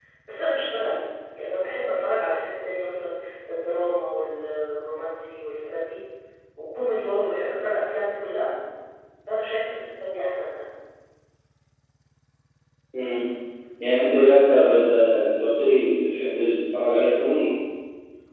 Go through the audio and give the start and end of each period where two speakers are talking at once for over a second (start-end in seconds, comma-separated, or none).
none